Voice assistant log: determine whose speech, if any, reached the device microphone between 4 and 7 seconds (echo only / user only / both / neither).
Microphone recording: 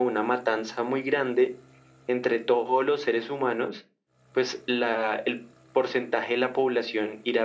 echo only